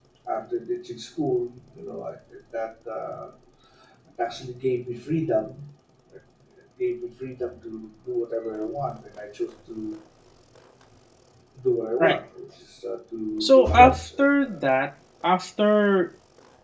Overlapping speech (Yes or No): Yes